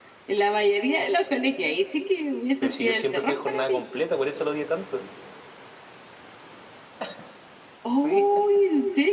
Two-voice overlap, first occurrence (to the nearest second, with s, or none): 3 s